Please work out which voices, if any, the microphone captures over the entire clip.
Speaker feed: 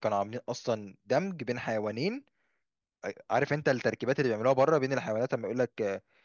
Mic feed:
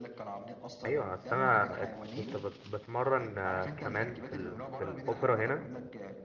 both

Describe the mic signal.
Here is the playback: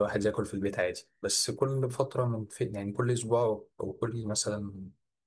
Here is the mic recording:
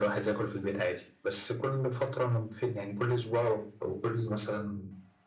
echo only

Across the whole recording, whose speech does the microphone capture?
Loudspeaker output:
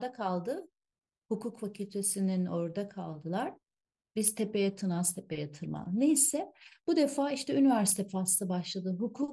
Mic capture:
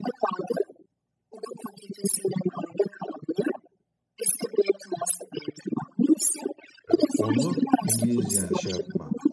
both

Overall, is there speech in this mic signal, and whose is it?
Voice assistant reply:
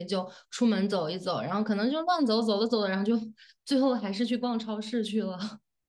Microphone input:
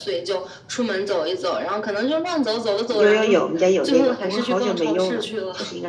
both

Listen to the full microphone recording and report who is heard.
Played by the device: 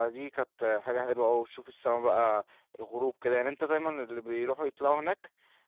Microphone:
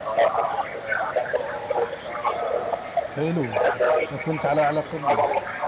both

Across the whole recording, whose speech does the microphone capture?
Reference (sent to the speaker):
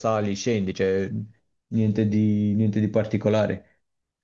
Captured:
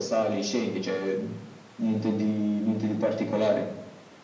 echo only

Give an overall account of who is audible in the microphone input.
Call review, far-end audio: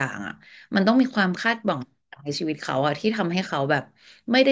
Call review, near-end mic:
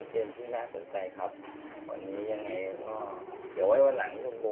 user only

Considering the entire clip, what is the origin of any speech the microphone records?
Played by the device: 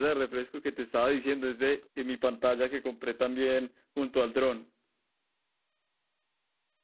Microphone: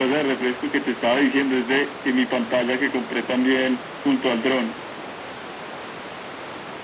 echo only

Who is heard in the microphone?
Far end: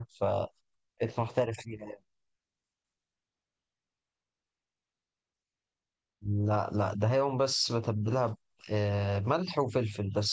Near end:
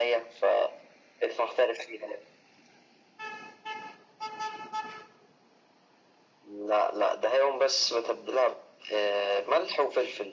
echo only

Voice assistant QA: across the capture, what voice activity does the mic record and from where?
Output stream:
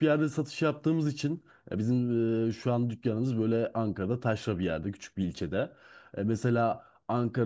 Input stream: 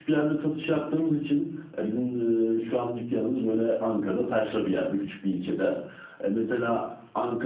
echo only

